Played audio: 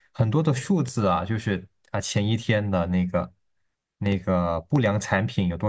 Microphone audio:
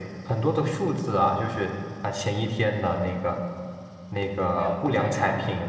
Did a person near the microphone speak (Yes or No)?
Yes